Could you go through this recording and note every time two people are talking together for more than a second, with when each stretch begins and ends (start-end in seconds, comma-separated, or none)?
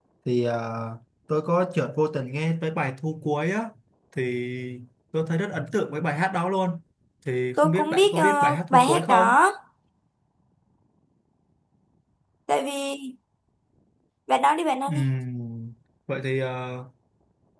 7.6-9.3